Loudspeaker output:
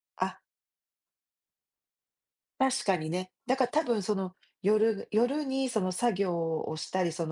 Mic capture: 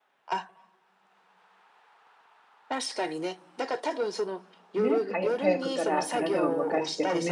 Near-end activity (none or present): present